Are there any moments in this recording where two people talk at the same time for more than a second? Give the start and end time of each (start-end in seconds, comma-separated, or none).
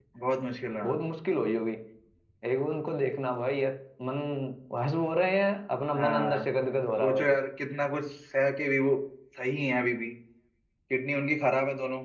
none